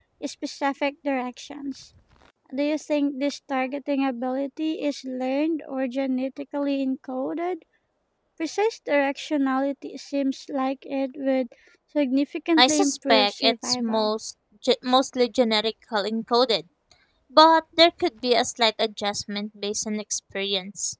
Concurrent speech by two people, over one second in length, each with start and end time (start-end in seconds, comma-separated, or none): 12.6-14.1